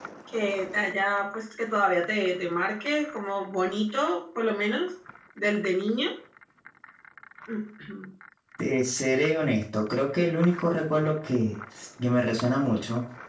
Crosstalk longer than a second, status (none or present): none